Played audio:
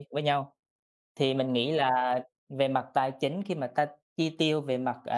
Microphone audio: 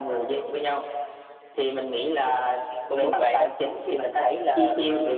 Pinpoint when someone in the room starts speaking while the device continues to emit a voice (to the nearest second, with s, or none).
3 s